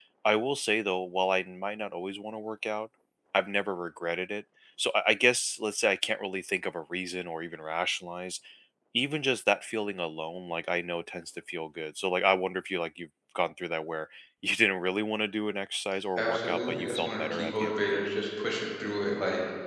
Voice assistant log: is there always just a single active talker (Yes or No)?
No